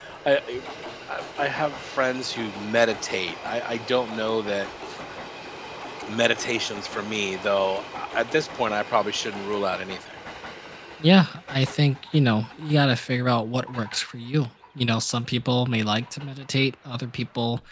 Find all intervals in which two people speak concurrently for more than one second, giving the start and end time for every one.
none

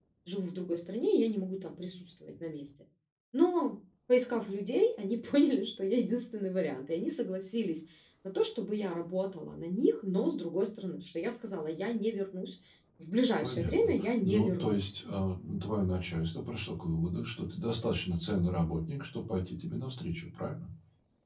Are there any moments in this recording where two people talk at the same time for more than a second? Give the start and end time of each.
13.4-14.8

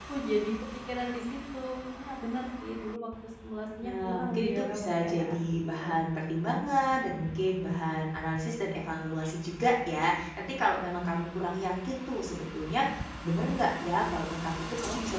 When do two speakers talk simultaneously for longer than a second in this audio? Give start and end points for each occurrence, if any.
3.8-5.9

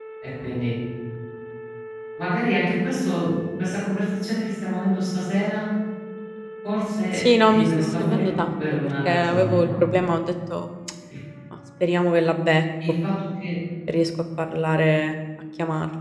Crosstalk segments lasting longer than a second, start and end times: 7.1-9.7

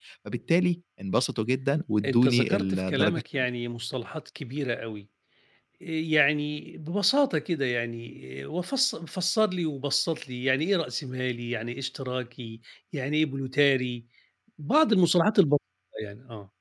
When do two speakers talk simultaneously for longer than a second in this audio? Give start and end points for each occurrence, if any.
2.0-3.4

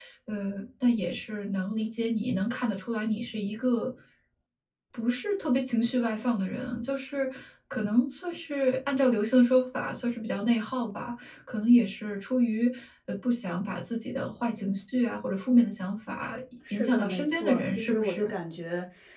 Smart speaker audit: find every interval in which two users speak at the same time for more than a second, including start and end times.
16.7-18.3

